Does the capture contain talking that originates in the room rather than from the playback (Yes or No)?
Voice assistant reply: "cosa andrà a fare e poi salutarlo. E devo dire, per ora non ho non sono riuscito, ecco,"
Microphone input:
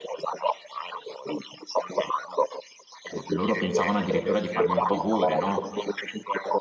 Yes